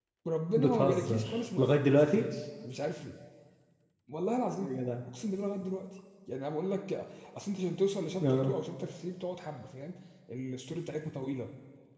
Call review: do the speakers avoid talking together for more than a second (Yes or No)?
No